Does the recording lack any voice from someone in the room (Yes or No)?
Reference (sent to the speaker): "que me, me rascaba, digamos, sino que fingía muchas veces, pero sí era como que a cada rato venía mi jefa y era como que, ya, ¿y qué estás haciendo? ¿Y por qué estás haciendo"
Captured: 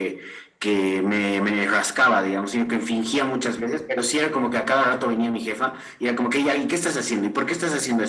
Yes